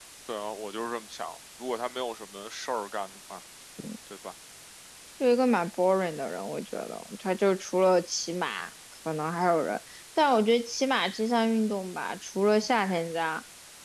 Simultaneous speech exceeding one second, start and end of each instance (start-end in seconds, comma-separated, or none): none